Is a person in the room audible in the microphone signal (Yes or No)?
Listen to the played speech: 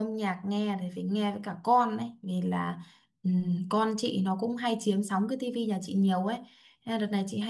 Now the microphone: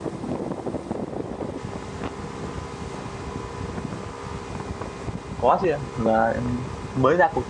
Yes